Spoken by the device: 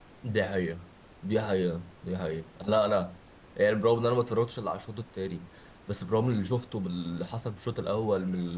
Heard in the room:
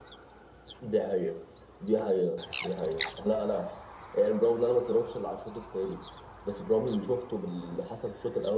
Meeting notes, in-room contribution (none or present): none